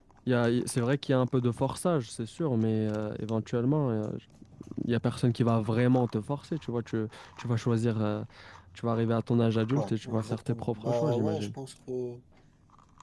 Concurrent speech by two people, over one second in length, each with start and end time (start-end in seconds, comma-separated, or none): 9.7-11.5